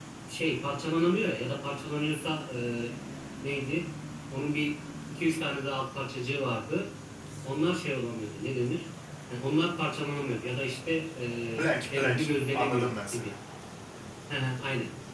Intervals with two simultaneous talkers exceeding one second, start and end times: 11.9-13.3

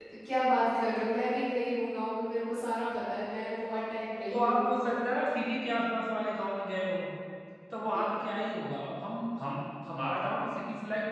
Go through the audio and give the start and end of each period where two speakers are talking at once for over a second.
none

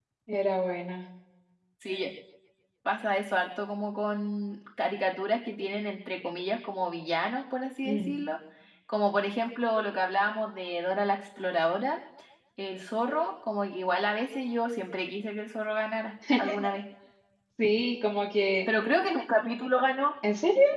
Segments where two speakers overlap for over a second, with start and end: none

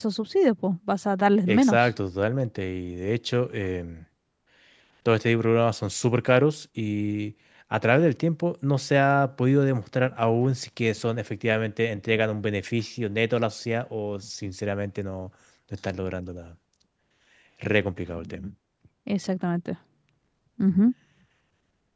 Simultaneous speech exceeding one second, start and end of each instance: none

